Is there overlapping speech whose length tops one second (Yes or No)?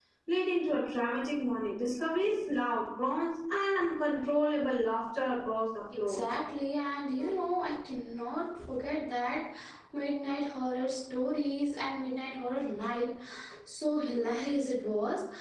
No